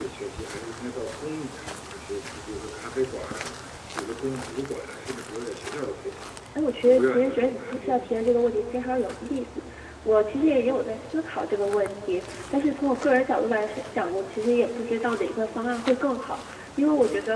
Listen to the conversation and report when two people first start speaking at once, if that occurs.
6.9 s

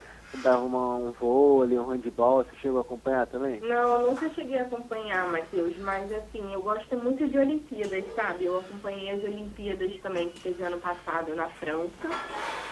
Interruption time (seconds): none

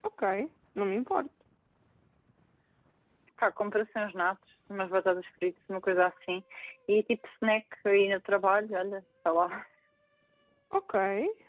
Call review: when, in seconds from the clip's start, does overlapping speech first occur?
none

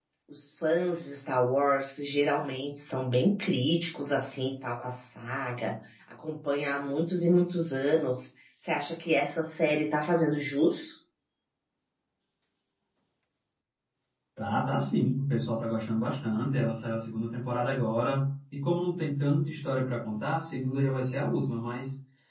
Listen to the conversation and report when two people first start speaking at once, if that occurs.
none

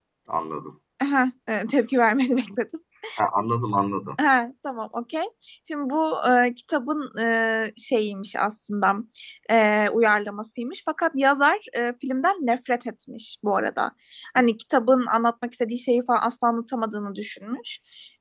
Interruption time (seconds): none

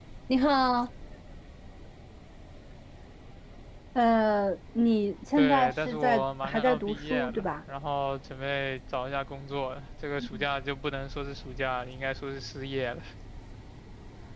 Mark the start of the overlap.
5.4 s

